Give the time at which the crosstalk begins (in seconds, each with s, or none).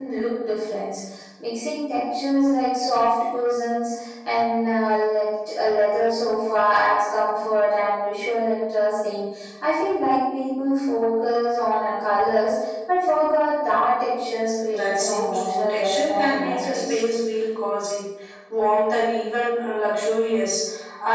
14.7 s